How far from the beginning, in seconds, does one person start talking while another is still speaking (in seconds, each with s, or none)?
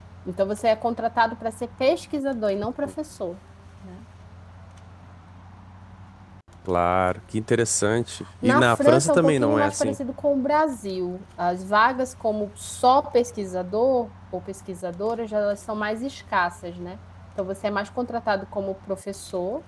8.4 s